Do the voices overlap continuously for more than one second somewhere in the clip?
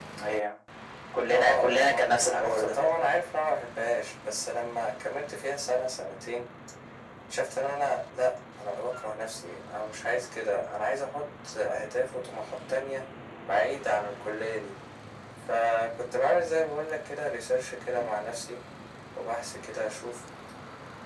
Yes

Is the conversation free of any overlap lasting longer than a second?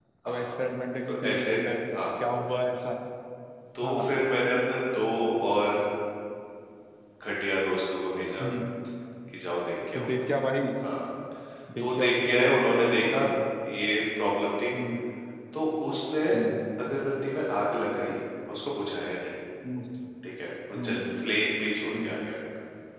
No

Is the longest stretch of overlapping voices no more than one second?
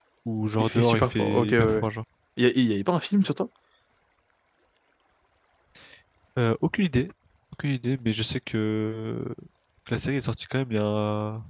No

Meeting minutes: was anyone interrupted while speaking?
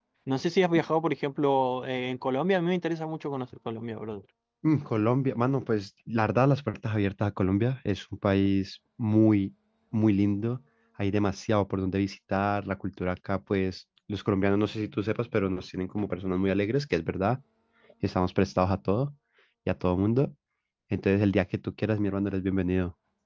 No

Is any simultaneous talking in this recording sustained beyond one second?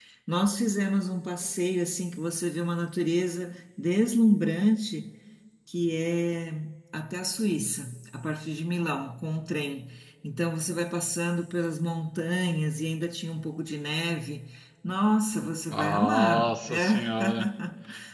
Yes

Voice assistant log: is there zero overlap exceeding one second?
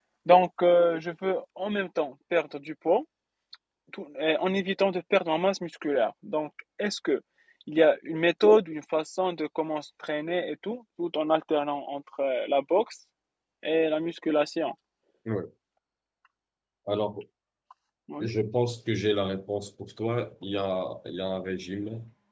Yes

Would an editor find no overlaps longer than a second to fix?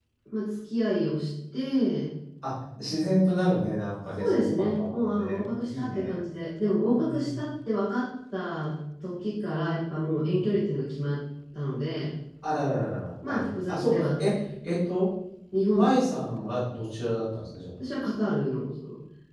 No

